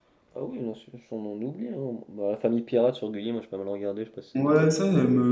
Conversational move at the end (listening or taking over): taking over